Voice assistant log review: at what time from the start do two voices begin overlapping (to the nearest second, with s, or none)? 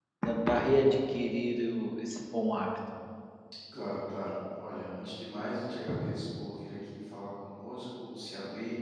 none